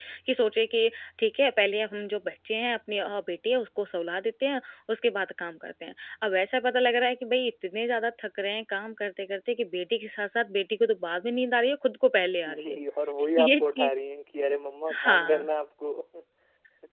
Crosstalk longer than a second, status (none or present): none